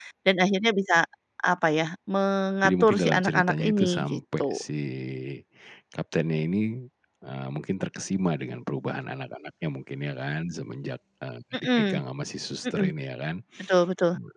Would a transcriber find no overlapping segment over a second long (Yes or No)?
No